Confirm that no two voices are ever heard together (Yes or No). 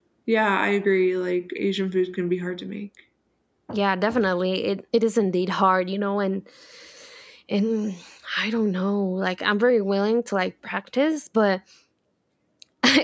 Yes